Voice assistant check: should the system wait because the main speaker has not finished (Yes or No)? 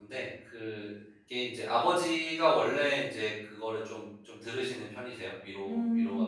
No